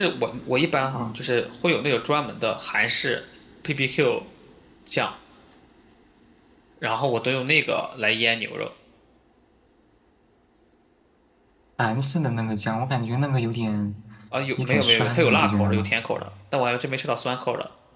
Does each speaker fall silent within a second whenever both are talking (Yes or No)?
No